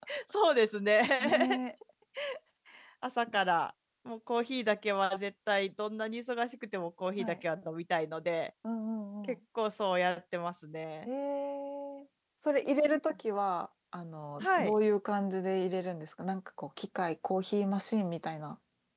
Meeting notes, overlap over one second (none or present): none